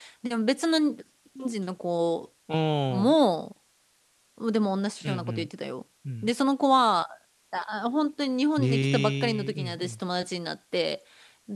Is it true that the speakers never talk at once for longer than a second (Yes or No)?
No